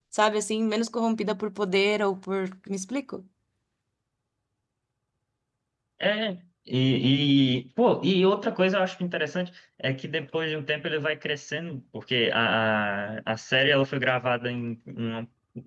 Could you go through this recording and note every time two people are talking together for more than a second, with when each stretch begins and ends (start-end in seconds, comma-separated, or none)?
none